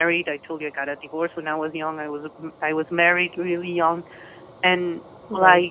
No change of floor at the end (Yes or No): Yes